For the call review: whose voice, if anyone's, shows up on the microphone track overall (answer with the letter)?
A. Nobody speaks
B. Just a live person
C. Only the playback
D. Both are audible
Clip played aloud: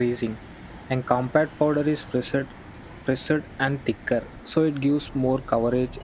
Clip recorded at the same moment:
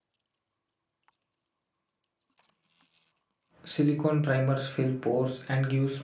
B